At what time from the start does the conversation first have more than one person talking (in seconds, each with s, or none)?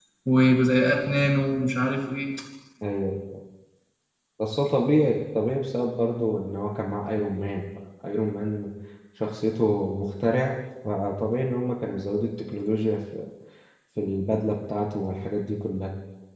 none